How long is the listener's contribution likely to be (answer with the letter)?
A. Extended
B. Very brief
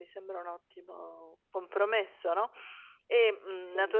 B